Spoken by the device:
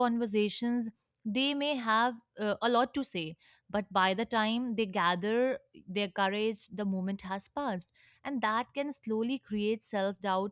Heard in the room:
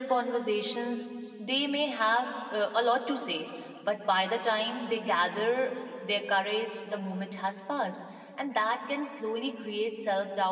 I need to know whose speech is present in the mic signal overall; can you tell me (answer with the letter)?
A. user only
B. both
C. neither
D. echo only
D